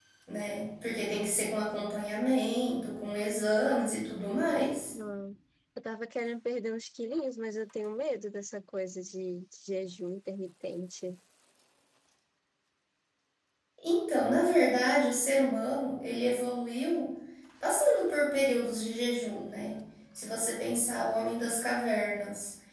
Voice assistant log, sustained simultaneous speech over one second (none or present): none